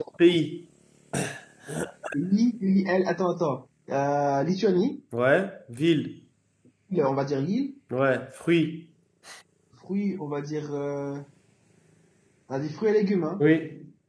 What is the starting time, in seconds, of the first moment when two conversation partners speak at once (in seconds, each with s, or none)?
none